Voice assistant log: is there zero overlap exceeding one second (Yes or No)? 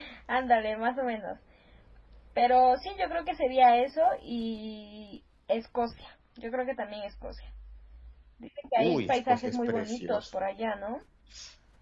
No